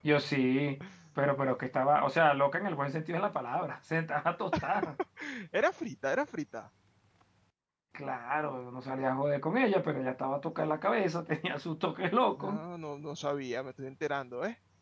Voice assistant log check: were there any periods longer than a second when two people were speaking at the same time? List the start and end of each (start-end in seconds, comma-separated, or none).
none